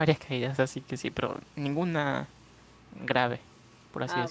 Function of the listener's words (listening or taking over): taking over